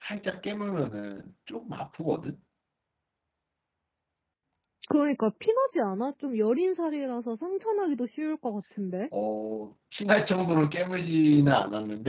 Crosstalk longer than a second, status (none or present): none